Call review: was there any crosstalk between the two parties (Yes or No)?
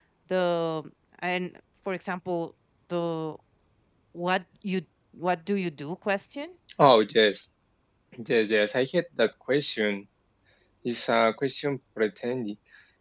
No